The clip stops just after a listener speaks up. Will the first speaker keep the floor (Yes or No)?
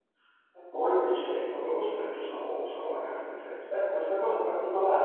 Yes